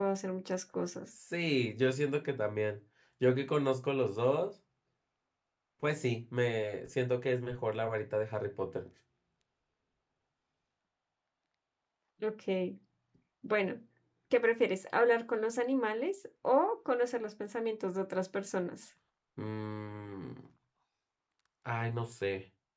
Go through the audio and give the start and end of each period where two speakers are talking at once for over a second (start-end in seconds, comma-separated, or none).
none